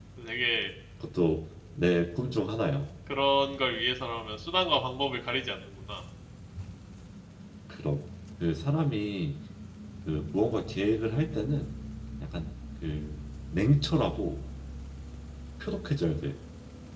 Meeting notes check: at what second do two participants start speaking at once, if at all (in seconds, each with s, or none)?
none